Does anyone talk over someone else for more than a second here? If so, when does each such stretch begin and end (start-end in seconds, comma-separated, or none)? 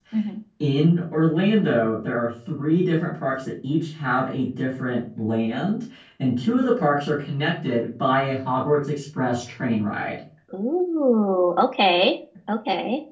none